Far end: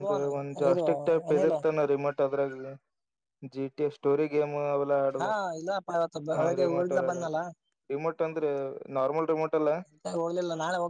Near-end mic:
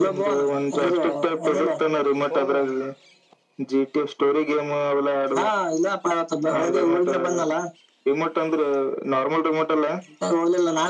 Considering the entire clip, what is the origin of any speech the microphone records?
both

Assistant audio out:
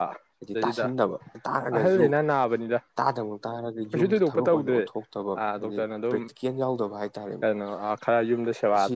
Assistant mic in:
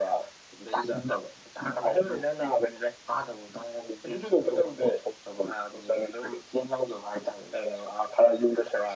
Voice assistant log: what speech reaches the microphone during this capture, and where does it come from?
echo only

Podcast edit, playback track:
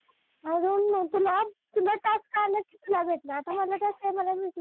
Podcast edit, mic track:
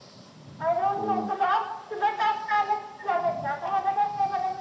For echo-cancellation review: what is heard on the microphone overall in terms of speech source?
both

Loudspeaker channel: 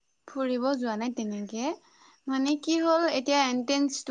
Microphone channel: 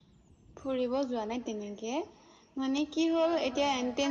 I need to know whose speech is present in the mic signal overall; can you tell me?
both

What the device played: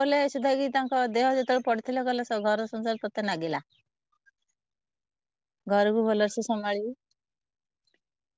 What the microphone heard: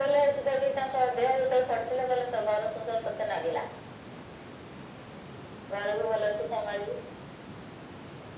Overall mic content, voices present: echo only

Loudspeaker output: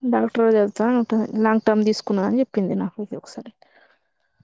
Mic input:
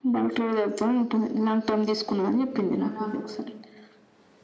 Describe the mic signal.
both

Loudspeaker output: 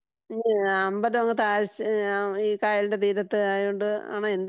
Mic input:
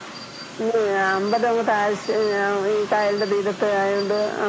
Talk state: echo only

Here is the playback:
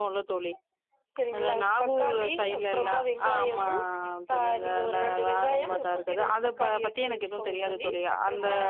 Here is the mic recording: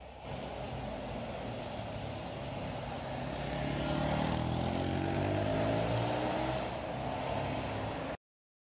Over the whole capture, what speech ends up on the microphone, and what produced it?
neither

